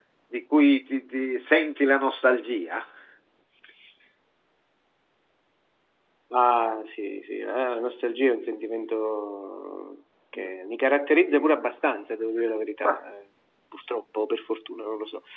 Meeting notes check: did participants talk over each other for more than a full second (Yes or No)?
No